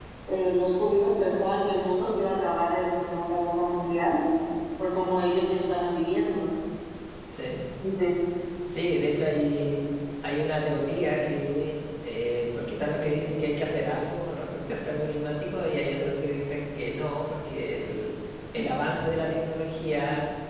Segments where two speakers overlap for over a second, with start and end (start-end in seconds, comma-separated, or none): none